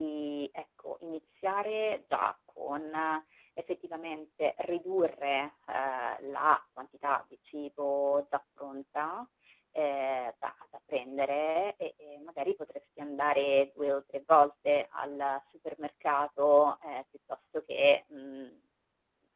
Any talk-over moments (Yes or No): No